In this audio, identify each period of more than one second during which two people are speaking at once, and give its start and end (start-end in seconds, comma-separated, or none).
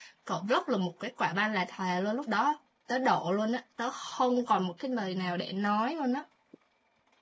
none